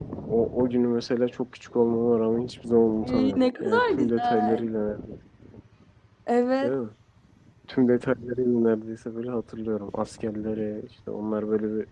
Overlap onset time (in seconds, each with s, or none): 3.0 s